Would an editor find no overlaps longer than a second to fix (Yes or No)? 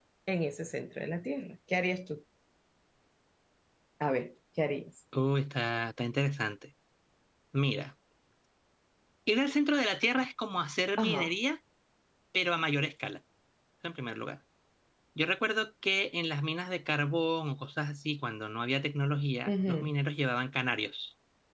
Yes